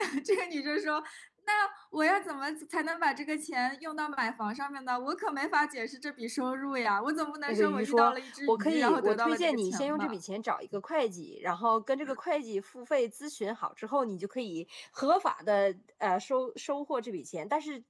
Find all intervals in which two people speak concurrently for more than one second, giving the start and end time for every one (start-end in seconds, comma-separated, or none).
7.5-10.2